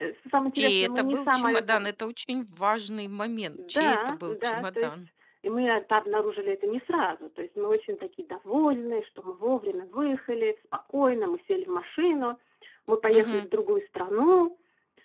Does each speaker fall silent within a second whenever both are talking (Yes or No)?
No